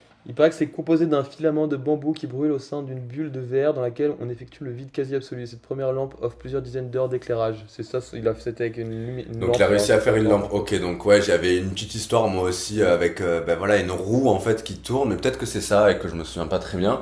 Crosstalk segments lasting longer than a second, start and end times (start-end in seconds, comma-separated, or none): 9.4-10.7